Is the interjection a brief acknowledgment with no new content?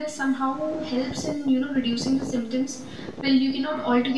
Yes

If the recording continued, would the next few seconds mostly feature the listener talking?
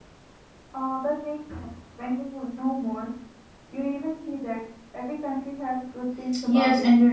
Yes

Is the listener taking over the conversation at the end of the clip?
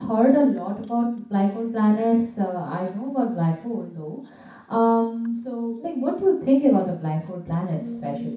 Yes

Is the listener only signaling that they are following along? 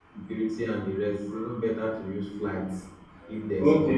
No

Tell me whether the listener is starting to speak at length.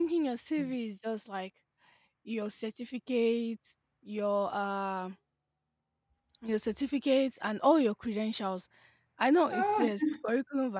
No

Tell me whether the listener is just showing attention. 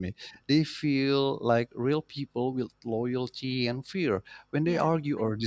Yes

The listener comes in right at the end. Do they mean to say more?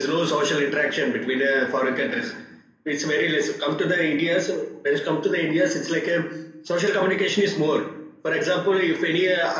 No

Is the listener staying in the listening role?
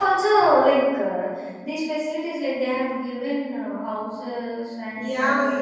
No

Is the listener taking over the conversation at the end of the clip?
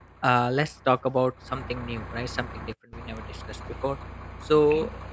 No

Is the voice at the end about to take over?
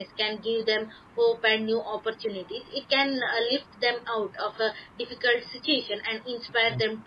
No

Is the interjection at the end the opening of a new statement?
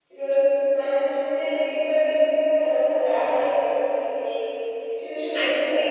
Yes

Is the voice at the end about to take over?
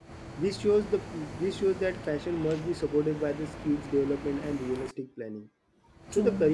No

